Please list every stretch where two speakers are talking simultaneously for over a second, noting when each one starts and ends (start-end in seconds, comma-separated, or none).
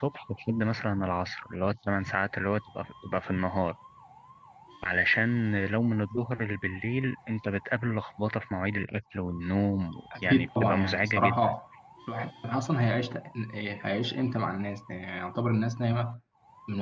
10.2-11.5